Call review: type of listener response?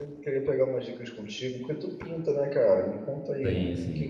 listening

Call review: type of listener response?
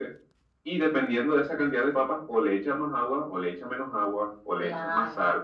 listening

